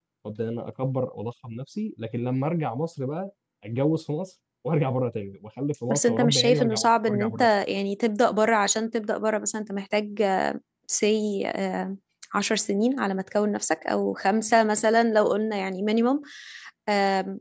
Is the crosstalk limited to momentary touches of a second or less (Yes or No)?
No